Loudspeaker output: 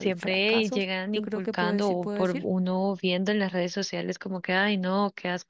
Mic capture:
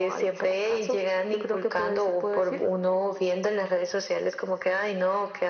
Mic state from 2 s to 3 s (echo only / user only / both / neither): echo only